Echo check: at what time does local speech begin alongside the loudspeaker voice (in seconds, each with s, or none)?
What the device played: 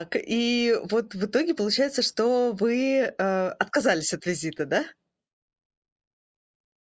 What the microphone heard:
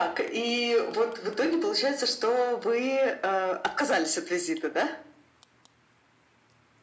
none